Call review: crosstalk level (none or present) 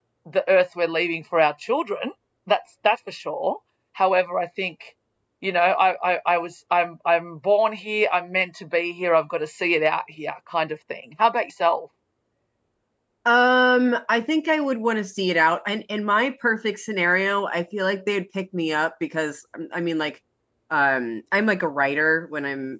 none